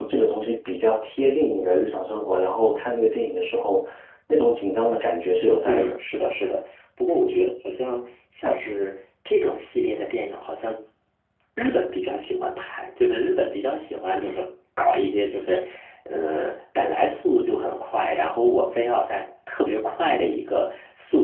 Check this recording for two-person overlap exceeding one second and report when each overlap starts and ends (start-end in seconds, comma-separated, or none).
none